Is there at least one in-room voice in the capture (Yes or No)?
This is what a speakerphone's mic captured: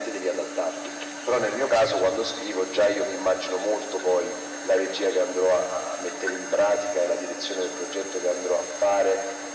No